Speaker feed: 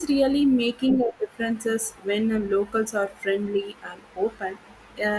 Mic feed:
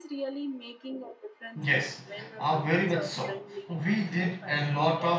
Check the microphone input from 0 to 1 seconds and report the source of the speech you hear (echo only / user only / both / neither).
echo only